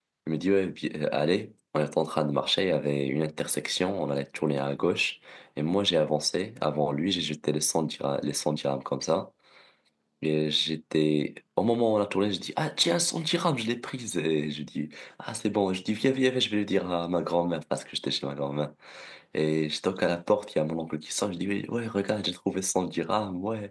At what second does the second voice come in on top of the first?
none

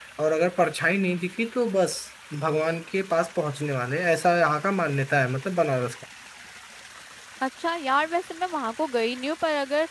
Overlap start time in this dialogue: none

